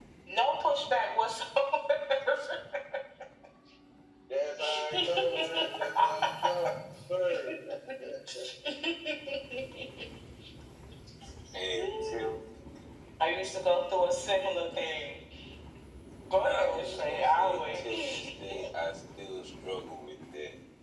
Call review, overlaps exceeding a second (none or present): present